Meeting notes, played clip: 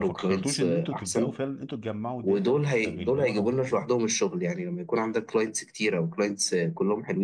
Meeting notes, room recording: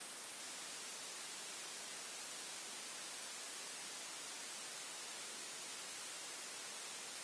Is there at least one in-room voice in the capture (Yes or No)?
No